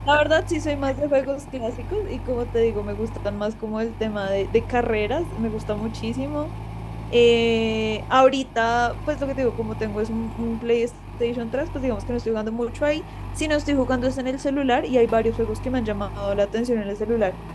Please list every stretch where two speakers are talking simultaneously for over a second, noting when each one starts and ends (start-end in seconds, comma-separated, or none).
none